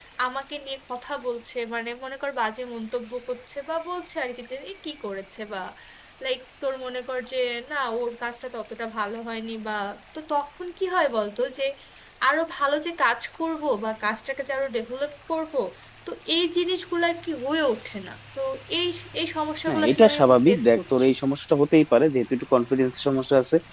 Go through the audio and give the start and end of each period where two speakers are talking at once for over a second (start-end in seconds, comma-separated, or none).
19.7-21.1